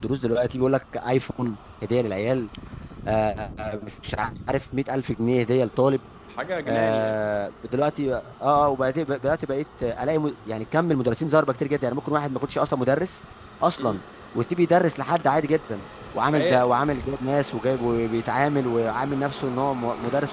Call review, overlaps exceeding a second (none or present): none